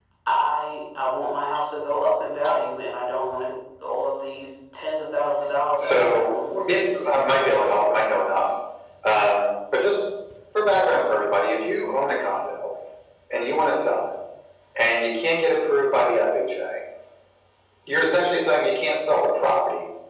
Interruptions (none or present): present